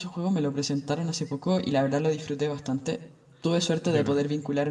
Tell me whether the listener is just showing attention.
Yes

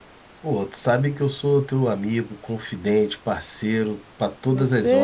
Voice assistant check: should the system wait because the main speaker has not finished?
No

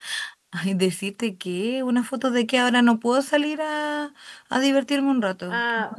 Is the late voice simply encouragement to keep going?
No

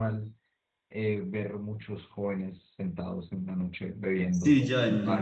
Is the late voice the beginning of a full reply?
Yes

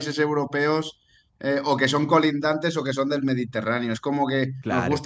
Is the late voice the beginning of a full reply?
No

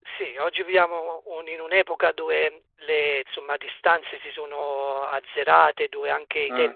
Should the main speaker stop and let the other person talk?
No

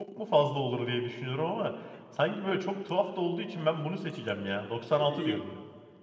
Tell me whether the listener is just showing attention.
No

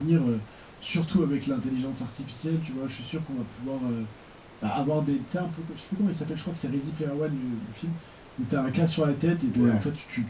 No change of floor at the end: Yes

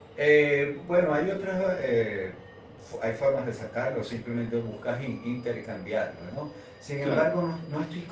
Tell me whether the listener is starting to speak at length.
No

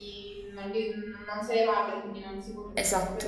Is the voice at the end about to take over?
Yes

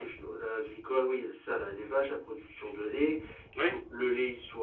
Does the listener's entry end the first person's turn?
No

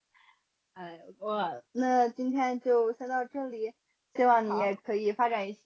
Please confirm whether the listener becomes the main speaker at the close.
No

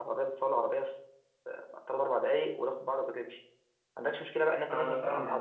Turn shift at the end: No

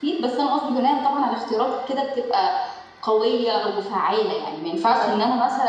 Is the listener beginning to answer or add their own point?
No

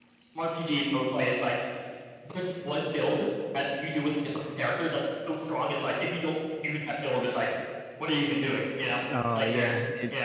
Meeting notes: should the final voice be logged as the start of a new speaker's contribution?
Yes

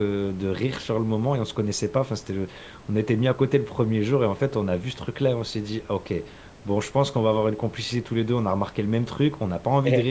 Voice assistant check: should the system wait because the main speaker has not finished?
Yes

